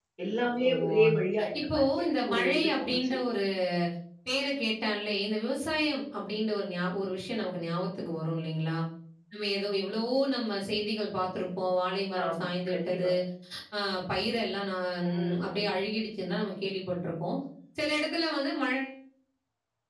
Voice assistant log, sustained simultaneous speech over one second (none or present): present